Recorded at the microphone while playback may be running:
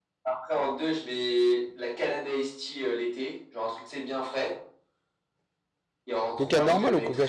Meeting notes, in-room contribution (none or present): present